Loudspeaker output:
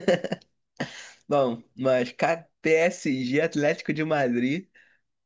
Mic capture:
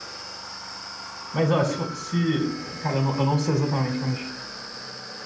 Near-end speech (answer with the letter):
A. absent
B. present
B